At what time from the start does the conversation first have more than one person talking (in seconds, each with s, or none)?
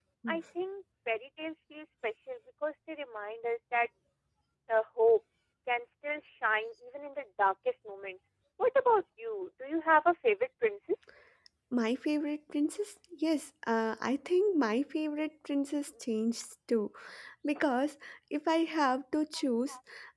none